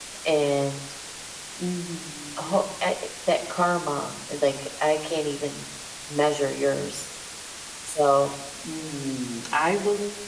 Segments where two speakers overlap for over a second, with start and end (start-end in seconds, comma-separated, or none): none